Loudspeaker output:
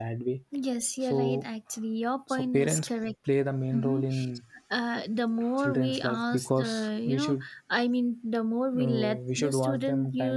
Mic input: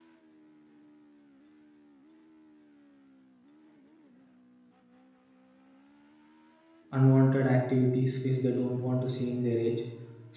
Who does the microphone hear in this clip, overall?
user only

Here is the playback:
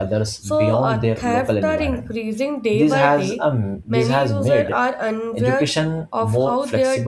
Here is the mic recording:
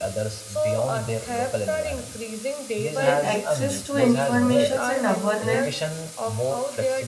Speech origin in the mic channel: both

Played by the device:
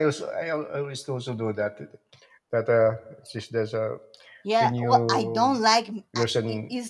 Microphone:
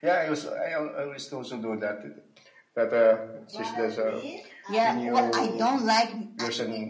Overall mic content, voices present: both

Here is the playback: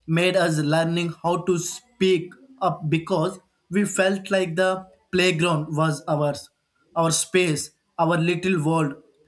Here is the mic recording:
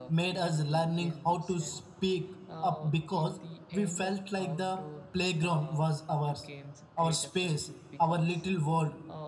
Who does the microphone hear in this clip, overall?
both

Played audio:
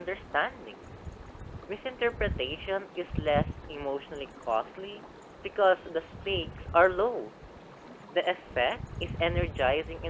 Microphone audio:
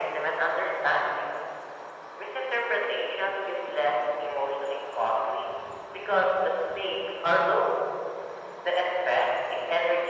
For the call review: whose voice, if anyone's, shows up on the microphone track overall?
echo only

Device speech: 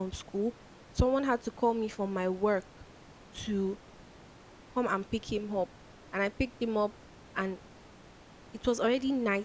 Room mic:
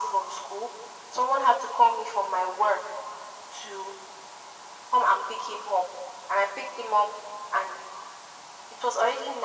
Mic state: echo only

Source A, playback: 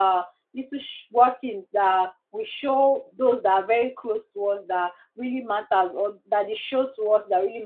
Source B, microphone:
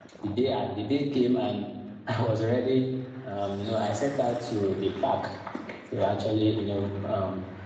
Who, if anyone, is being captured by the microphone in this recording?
user only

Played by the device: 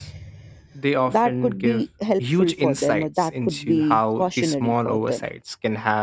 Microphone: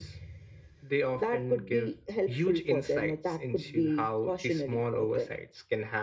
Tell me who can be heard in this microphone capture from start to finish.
echo only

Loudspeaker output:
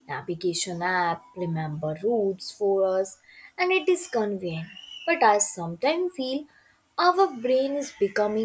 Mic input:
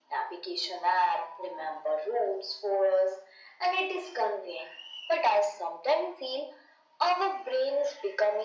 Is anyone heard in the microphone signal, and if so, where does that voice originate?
echo only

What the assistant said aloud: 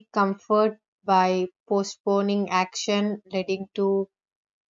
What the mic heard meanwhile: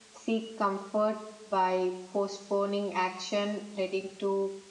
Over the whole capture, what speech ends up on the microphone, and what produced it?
echo only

